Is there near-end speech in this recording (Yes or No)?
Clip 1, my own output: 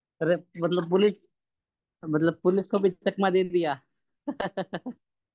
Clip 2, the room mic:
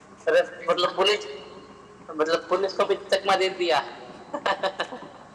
No